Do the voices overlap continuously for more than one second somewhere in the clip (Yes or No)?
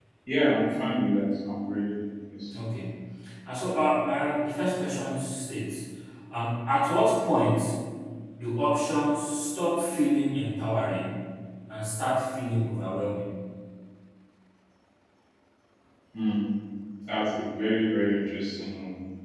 No